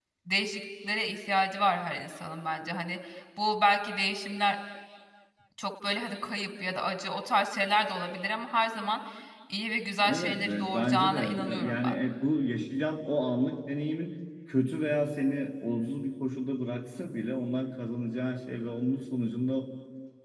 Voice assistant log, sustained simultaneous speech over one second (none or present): present